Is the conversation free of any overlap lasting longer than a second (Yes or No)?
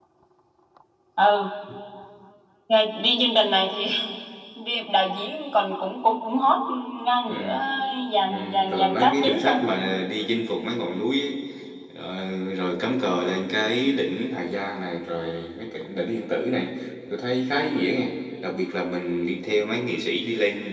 No